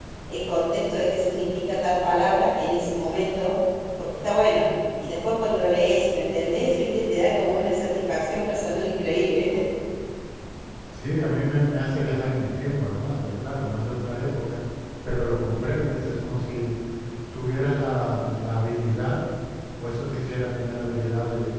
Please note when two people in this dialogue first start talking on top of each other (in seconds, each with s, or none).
none